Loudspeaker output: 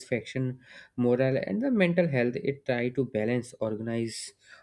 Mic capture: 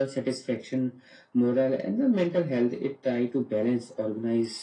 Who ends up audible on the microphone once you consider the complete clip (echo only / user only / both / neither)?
echo only